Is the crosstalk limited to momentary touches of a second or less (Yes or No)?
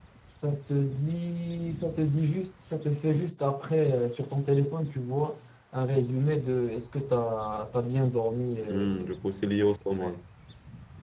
Yes